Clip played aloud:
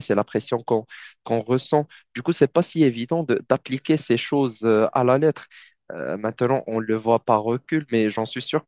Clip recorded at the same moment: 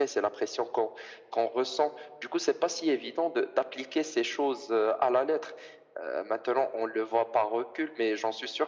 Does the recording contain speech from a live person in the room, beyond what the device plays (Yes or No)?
No